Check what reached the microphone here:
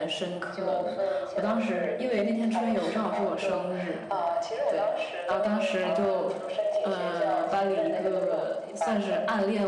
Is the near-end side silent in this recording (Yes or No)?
No